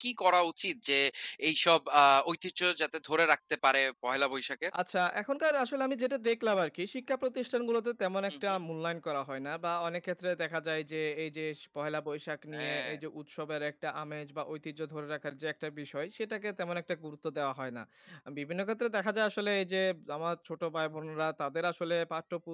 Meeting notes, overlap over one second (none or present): none